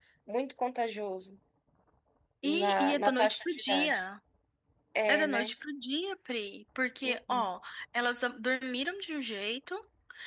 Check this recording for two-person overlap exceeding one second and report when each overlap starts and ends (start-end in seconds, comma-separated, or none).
2.4-4.0